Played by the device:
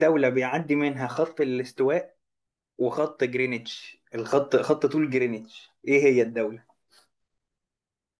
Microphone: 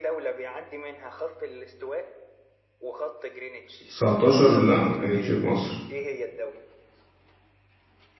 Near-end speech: present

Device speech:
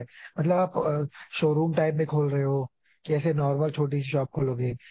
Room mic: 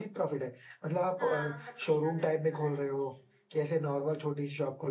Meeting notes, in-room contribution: present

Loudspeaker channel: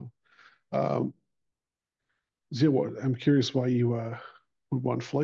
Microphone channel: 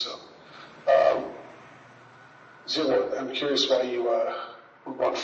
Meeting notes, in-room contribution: none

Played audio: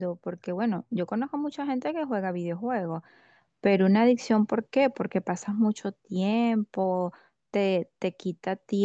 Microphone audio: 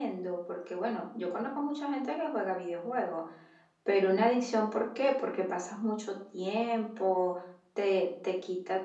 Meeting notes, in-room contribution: none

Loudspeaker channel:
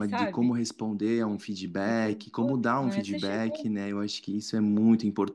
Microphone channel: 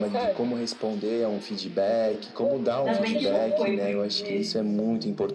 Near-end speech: present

